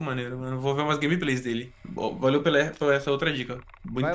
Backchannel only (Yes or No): No